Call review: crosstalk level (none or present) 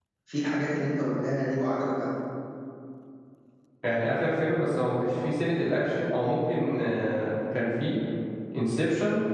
none